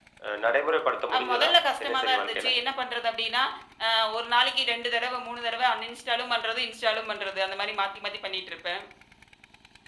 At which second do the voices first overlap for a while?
1 s

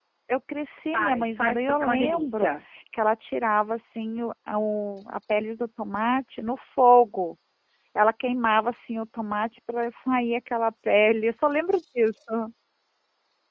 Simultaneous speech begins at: 1 s

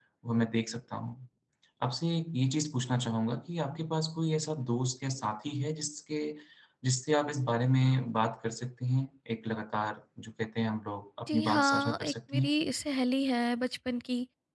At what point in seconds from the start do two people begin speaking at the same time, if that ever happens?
11 s

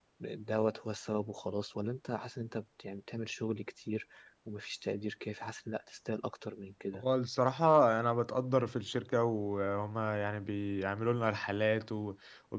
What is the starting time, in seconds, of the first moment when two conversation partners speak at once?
none

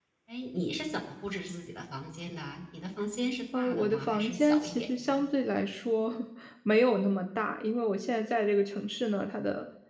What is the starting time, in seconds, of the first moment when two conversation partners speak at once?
4 s

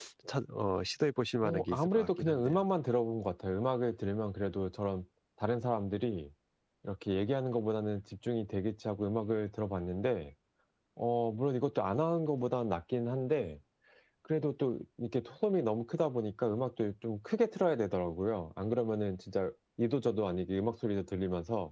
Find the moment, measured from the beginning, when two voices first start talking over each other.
1 s

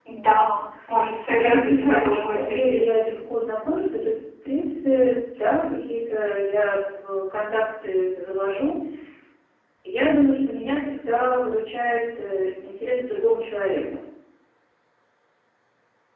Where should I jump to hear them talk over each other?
1 s

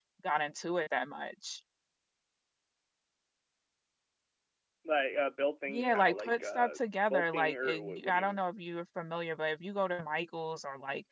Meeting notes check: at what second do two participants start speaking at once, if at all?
6 s

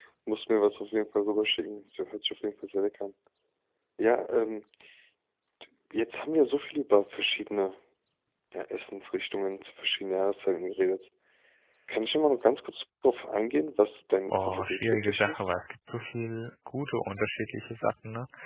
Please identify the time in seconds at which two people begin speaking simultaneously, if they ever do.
14 s

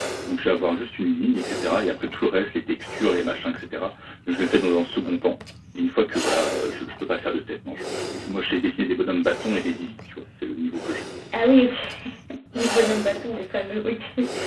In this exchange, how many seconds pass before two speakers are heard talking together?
none

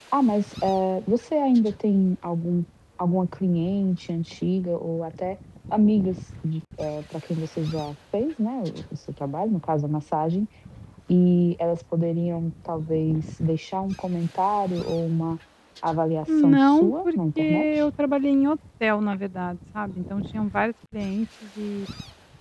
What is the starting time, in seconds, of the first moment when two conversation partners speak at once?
16 s

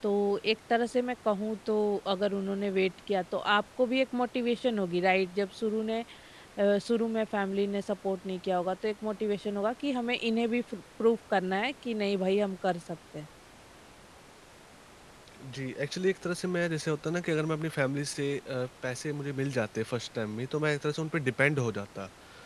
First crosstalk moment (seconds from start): none

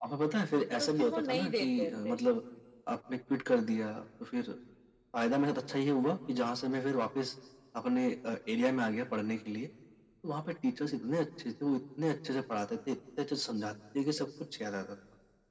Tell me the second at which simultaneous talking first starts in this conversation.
1 s

